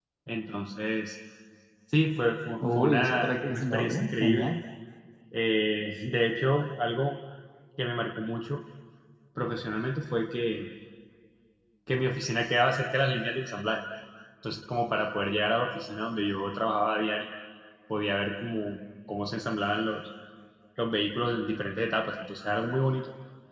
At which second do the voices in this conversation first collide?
2.6 s

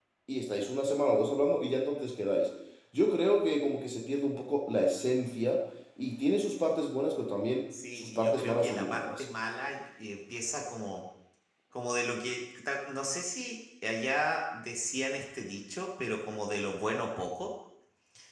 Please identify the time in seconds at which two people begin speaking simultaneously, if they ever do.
8.0 s

